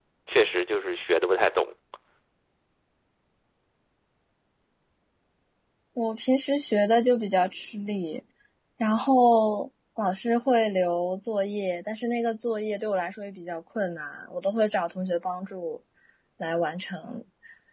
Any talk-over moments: No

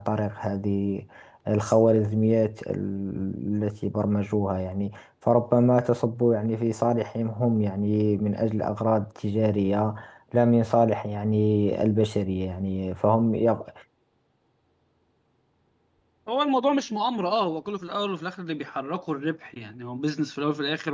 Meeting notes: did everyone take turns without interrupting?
Yes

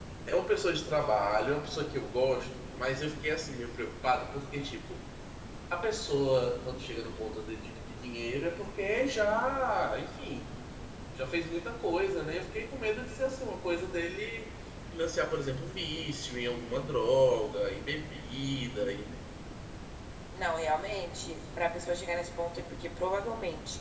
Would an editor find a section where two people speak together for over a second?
No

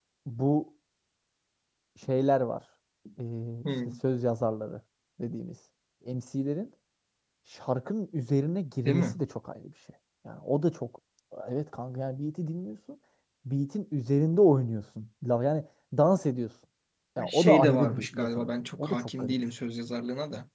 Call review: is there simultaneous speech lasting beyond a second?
Yes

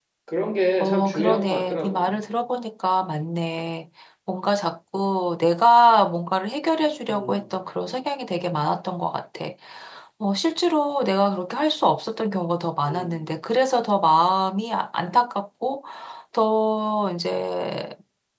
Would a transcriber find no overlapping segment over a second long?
No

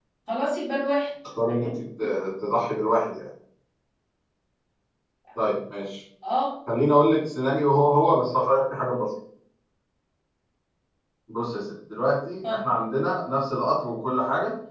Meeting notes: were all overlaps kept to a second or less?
Yes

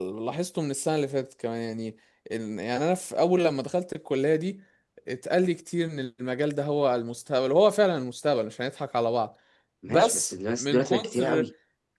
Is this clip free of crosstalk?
No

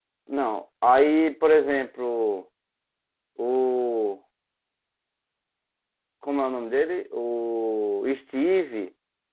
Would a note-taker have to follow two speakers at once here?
No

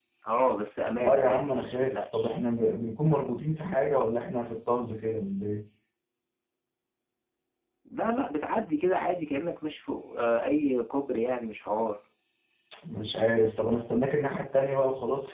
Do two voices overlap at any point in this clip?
Yes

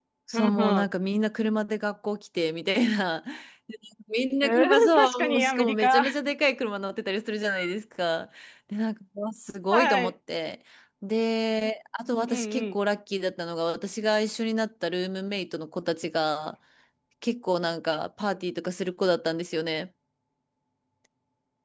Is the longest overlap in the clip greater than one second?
Yes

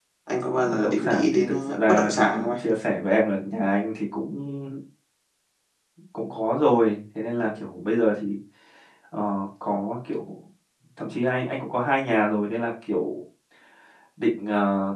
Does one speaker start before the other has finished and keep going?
Yes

